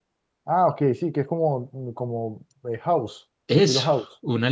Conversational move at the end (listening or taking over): taking over